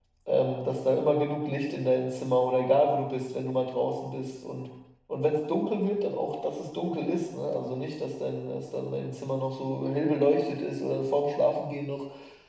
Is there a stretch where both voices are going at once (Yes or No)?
No